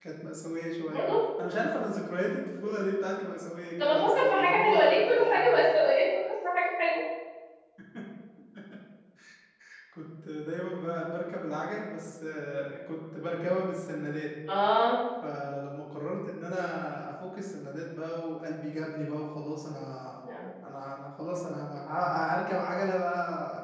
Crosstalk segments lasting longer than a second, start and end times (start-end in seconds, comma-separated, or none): 3.8-5.5